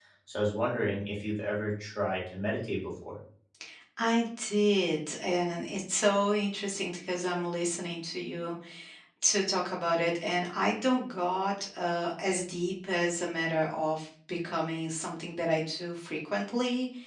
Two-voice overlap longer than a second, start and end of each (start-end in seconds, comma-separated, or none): none